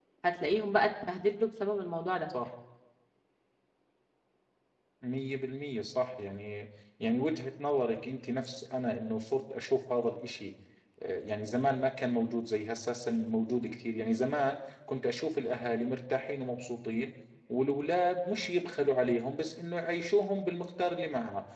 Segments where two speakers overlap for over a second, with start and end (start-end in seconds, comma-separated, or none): none